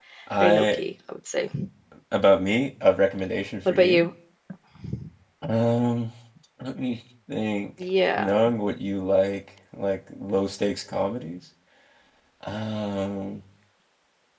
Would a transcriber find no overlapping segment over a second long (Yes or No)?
Yes